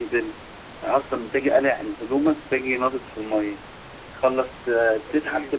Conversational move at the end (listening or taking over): listening